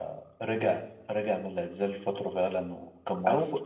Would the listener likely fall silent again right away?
No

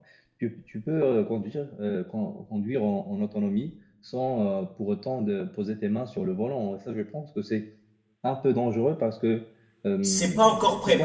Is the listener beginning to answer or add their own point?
Yes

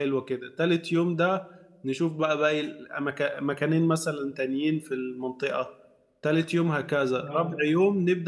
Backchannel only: Yes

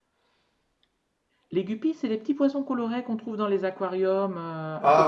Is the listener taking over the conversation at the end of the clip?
Yes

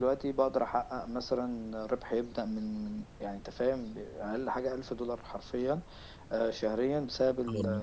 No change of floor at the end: Yes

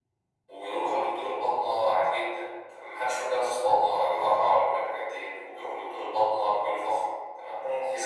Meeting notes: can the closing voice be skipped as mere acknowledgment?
Yes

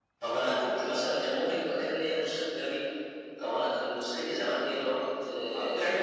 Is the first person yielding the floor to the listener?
Yes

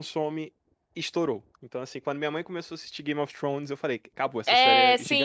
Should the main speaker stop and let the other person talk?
Yes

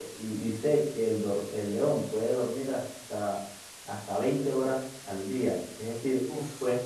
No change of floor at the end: Yes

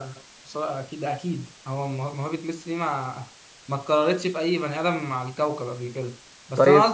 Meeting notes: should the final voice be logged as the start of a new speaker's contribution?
No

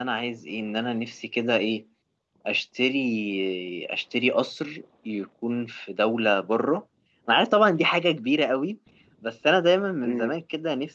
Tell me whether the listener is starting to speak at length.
No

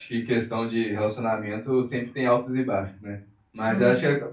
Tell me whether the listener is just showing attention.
Yes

